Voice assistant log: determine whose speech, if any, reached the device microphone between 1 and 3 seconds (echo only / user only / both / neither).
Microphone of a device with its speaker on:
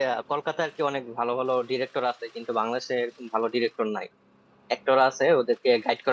user only